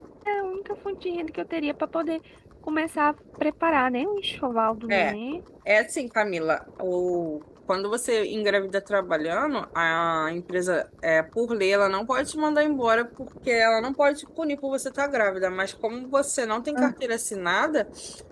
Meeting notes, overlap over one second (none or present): none